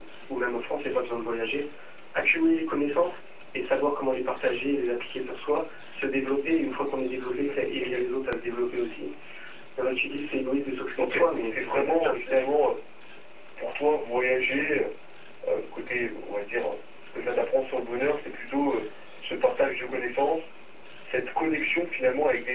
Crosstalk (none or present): present